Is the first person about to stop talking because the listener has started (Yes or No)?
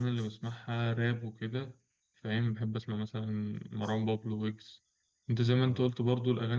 No